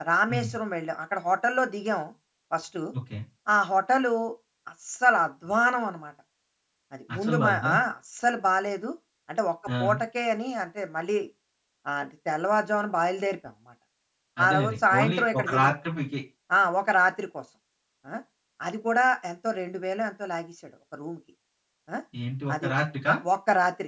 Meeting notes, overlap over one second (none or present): present